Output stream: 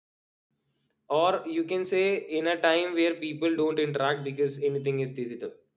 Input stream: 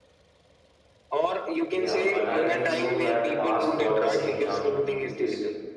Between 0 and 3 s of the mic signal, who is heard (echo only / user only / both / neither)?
both